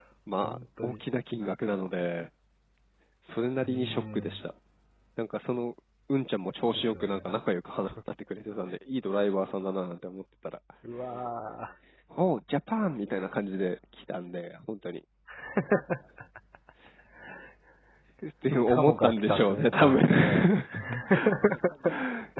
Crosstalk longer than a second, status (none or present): present